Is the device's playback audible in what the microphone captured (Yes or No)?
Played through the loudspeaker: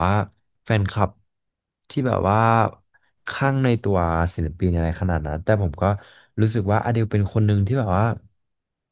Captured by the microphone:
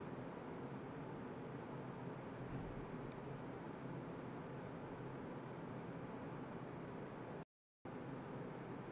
No